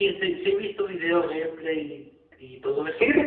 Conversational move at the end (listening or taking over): taking over